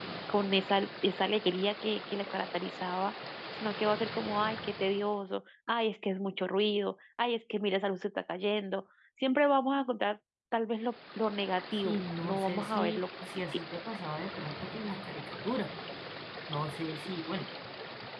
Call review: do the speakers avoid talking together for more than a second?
No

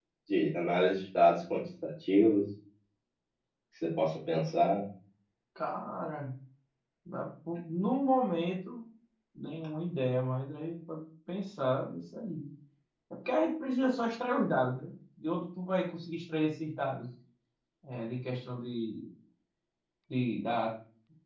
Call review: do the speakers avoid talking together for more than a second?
Yes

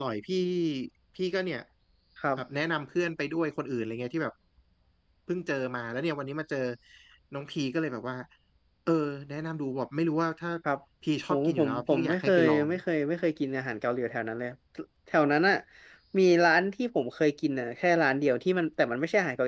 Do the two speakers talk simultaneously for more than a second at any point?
Yes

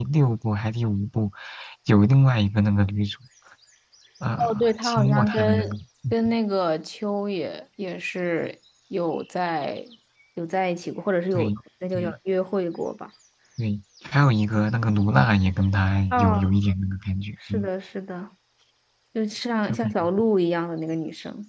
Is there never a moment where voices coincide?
No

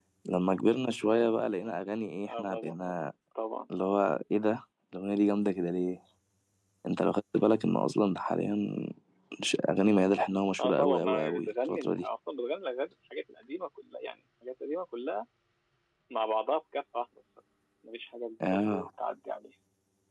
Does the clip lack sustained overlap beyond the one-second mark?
No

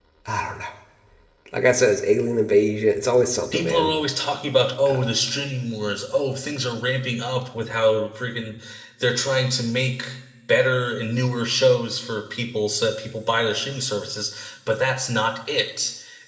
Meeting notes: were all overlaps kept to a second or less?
Yes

